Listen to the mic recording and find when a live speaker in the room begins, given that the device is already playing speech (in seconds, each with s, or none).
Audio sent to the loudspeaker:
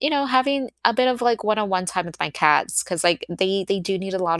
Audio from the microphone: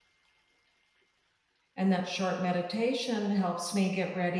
1.8 s